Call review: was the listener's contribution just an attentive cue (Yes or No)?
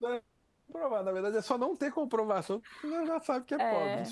No